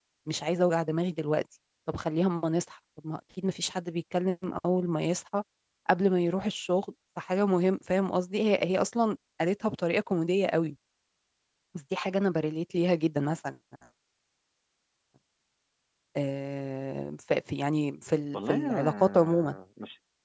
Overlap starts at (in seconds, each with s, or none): 18.3 s